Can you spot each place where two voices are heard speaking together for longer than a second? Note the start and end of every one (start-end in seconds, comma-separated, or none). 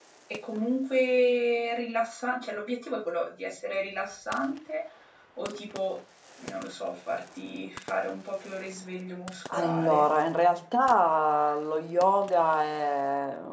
none